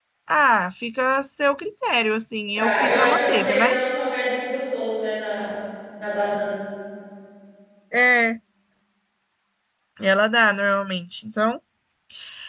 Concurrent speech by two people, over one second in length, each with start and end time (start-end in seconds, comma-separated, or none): 2.6-3.8